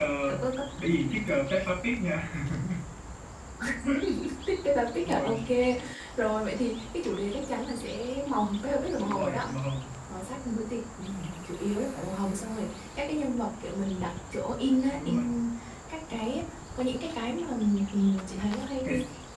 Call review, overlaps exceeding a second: none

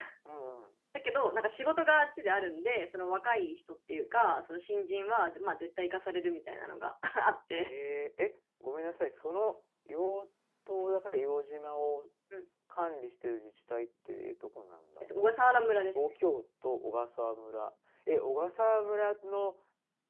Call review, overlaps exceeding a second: none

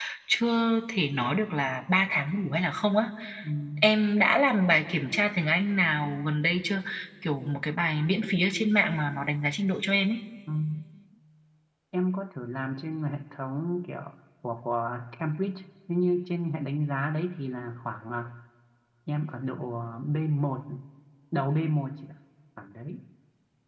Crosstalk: none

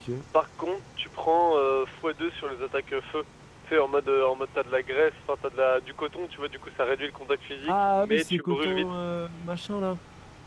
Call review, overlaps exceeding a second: present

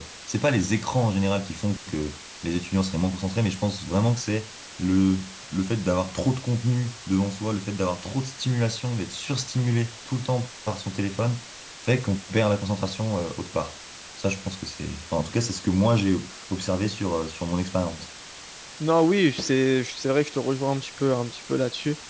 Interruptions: none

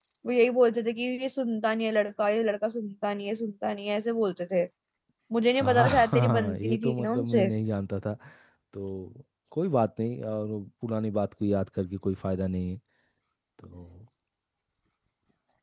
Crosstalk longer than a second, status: present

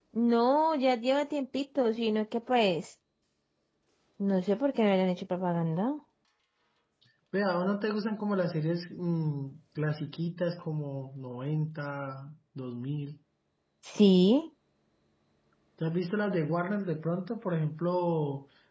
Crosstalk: none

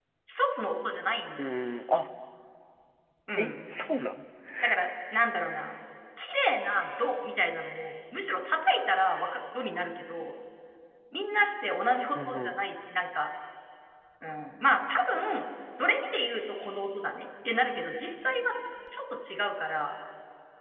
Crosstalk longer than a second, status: none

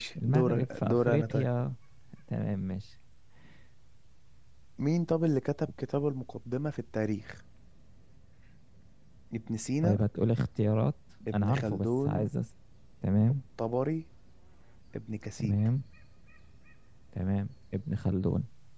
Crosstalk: present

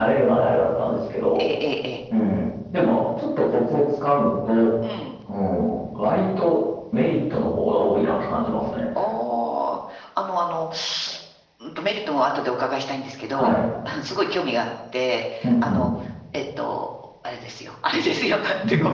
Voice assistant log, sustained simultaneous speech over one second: none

